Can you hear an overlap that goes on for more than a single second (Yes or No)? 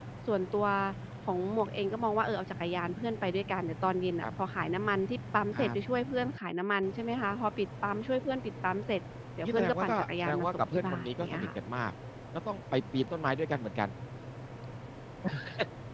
Yes